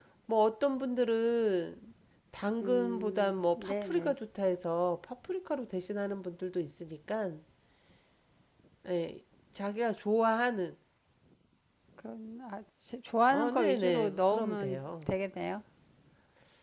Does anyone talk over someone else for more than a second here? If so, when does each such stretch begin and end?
2.6-4.1, 13.3-15.1

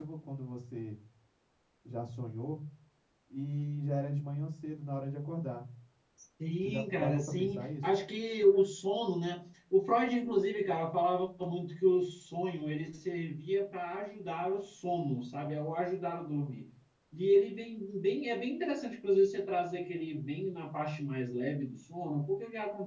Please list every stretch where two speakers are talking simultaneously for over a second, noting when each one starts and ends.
6.6-7.8

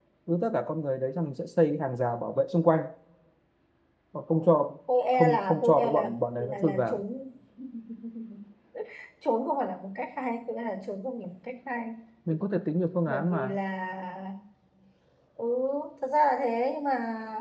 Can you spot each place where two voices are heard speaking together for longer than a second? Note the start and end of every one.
5.1-7.0

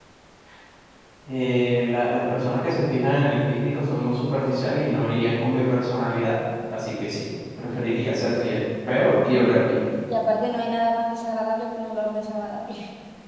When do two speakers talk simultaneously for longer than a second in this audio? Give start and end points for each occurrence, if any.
none

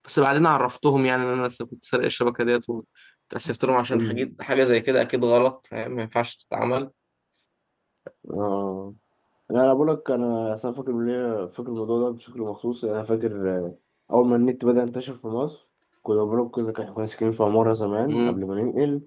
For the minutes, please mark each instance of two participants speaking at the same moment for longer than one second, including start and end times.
none

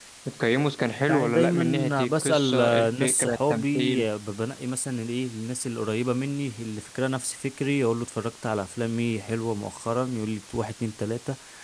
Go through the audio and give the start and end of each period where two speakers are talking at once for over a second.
1.1-4.0

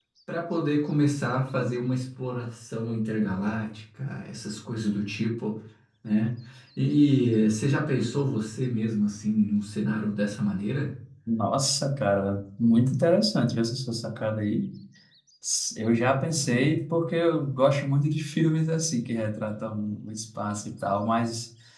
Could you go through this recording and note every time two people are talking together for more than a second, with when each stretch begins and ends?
none

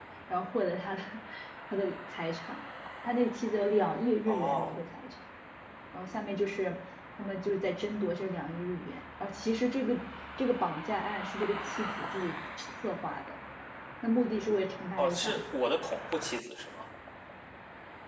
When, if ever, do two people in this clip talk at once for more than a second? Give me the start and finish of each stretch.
none

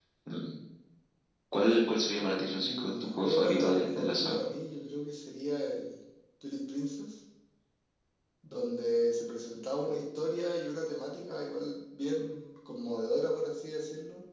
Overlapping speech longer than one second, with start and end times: 2.6-4.4

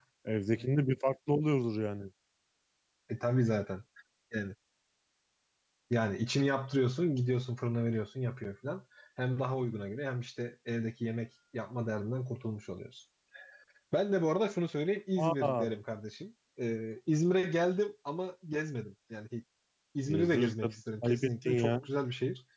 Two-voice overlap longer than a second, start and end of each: 20.1-21.8

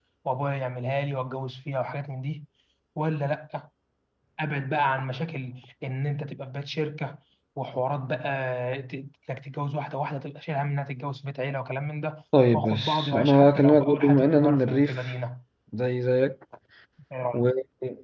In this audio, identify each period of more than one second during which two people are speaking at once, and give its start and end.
12.5-15.1

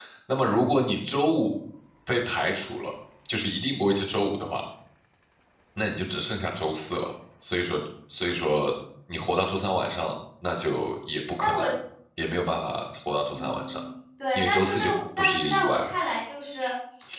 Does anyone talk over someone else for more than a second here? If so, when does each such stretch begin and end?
14.3-15.8

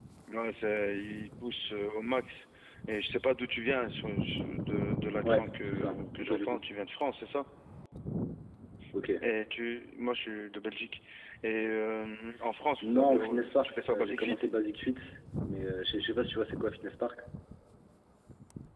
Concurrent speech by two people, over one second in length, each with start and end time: 5.2-6.6, 12.8-14.4

